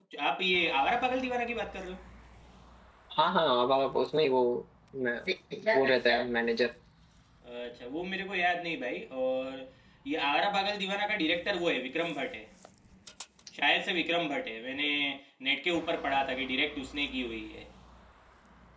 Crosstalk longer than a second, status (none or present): none